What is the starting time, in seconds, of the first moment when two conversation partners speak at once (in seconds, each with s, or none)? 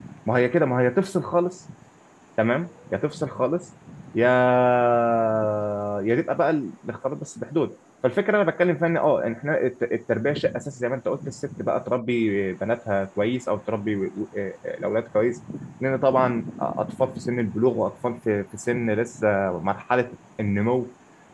none